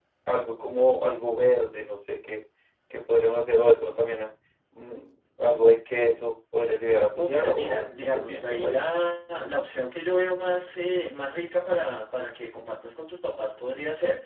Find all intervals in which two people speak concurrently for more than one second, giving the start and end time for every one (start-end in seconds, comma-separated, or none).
7.2-8.8